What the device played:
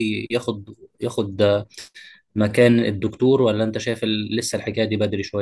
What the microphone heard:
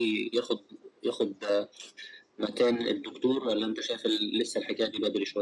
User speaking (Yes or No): No